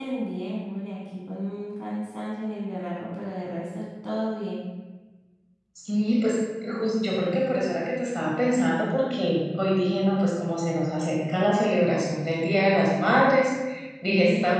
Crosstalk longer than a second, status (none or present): none